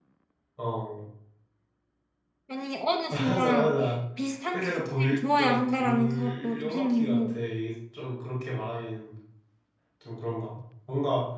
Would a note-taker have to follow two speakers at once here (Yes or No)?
Yes